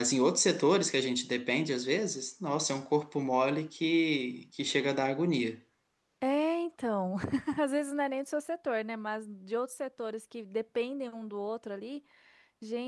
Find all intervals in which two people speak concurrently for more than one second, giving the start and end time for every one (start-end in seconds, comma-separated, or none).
none